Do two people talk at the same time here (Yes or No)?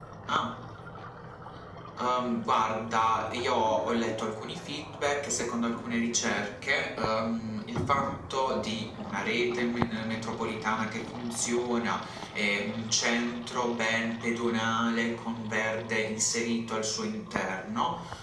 No